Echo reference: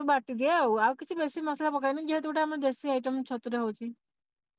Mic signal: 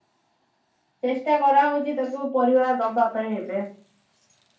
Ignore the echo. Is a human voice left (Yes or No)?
Yes